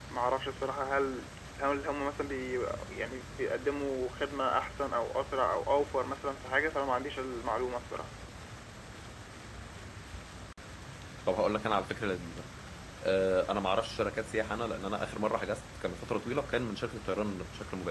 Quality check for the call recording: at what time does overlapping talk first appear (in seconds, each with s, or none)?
none